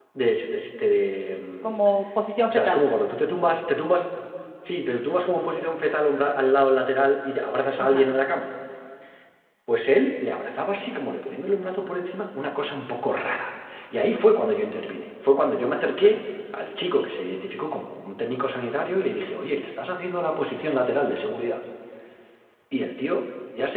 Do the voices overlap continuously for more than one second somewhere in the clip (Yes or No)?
No